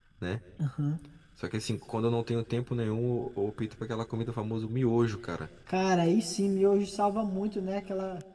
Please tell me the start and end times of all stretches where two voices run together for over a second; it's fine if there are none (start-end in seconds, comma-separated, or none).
none